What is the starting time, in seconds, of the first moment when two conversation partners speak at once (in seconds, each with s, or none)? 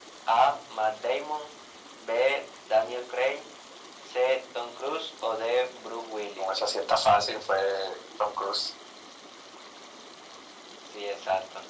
none